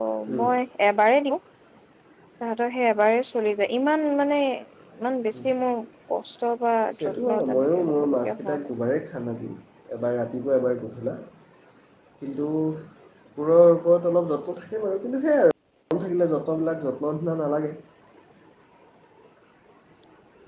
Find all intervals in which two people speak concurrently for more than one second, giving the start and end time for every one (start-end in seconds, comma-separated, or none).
7.0-8.7